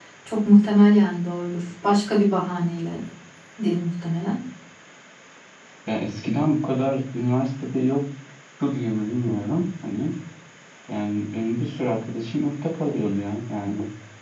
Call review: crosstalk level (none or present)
none